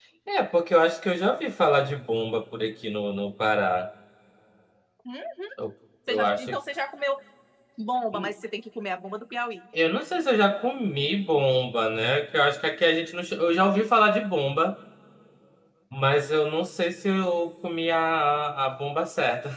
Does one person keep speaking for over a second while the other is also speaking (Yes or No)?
No